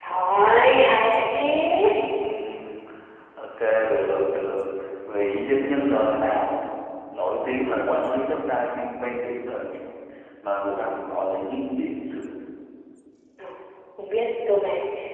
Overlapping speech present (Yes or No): No